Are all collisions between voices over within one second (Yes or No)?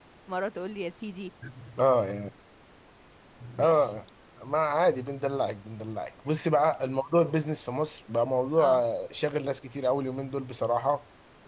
Yes